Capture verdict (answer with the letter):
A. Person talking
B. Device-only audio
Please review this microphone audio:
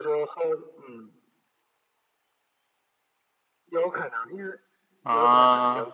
A